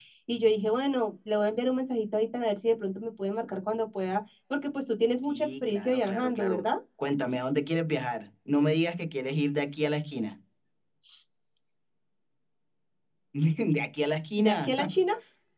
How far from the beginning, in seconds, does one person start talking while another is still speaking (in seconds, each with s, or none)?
5.2 s